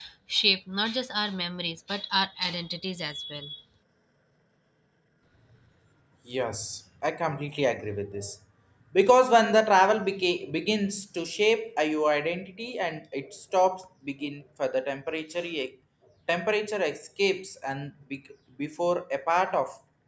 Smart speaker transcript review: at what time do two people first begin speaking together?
none

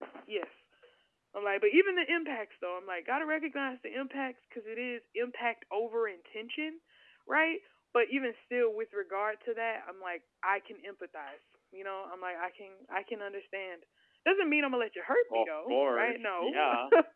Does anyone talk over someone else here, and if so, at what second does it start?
15.3 s

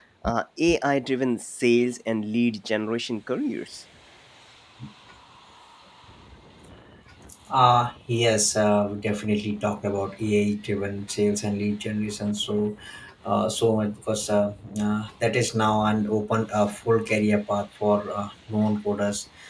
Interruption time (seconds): none

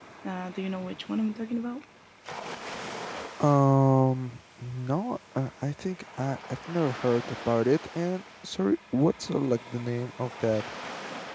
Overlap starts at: none

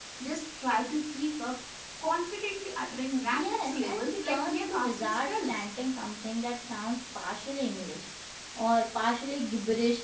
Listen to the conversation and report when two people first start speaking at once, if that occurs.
3.3 s

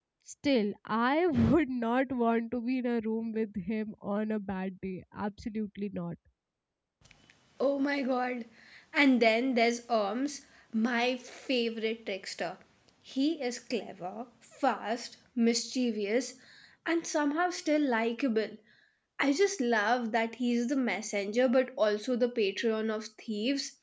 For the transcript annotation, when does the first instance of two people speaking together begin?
none

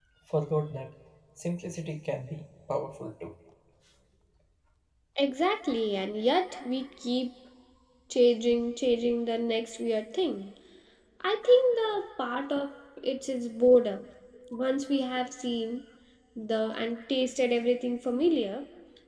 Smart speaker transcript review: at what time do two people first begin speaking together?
none

